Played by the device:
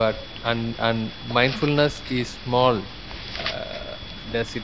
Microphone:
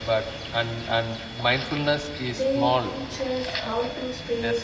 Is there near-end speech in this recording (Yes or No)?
Yes